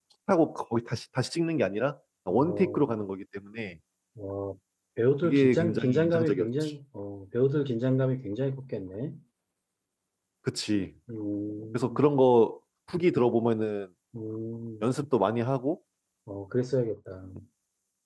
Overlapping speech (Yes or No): Yes